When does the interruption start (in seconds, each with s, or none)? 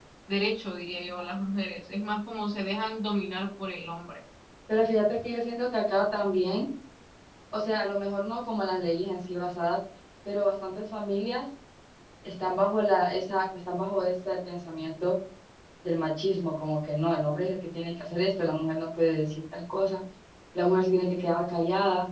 none